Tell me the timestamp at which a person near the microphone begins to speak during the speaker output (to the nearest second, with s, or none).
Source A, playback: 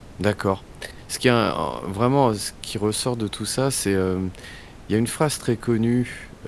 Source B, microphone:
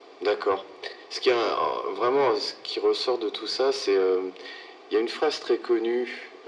none